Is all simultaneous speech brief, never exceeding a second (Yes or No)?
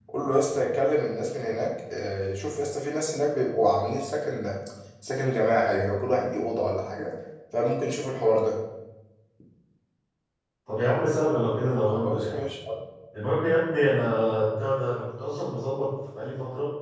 Yes